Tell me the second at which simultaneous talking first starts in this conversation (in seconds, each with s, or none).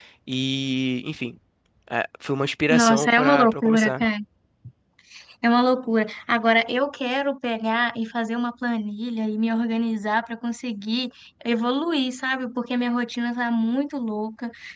2.7 s